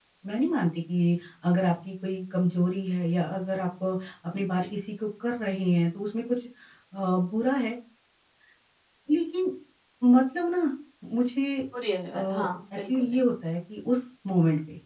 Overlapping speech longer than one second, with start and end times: none

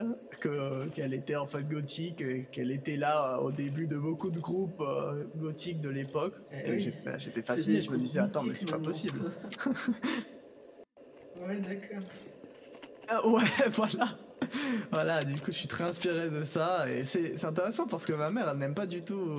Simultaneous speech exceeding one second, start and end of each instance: 7.5-9.0

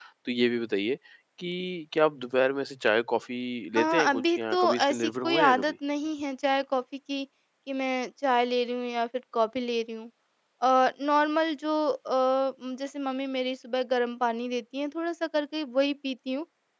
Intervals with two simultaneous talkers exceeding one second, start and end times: 3.8-5.7

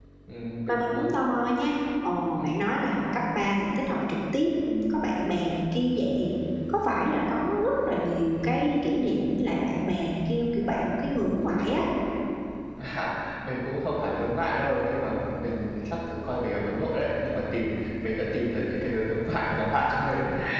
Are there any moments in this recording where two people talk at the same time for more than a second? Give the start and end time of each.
none

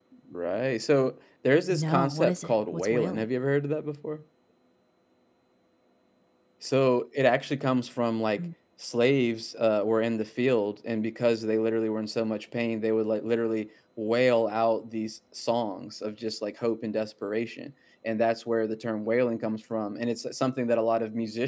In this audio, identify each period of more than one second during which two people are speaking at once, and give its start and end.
1.7-3.2

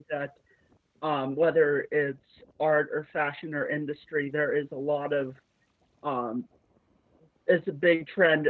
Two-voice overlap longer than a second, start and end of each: none

